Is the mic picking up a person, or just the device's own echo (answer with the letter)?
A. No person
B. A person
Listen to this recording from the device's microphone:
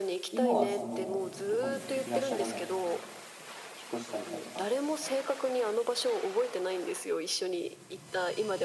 B